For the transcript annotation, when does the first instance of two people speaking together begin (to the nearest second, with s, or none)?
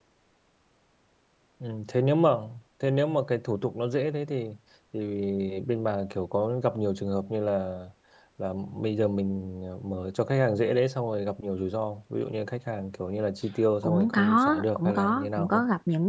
14 s